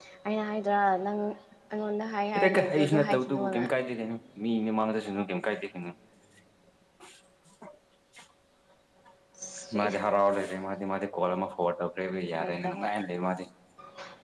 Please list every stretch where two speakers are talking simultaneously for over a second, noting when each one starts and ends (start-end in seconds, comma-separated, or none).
2.4-3.6